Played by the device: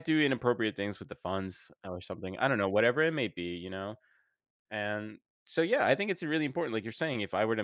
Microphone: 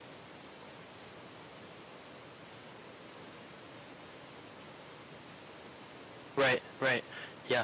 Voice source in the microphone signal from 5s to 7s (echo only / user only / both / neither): user only